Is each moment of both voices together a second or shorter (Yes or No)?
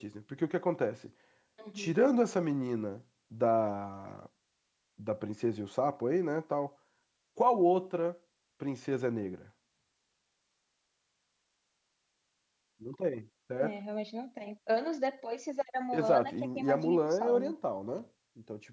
No